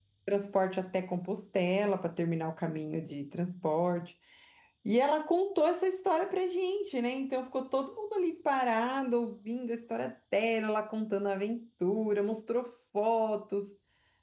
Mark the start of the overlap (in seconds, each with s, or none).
none